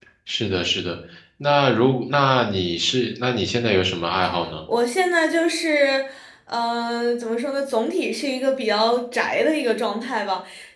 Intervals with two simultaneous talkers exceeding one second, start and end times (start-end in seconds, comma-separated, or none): none